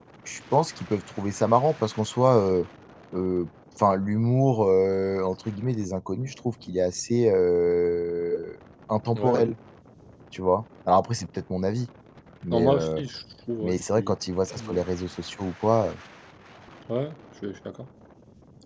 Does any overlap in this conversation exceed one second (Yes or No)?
No